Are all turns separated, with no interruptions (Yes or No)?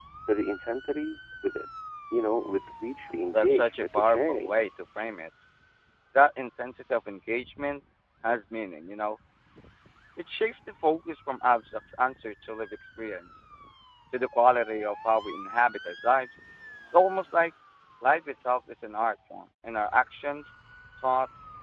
No